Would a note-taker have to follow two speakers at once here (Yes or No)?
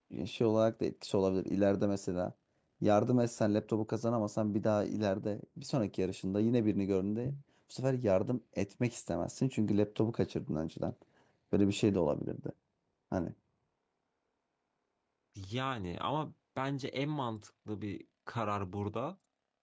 No